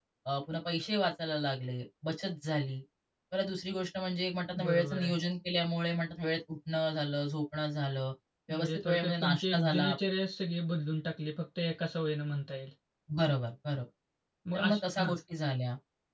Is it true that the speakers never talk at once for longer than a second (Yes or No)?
No